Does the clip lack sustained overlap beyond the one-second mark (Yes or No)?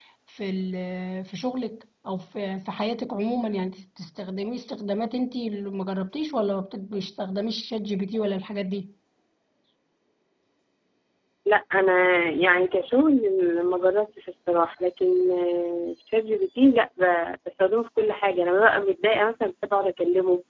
Yes